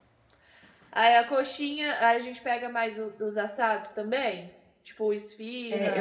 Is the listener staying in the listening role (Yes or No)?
No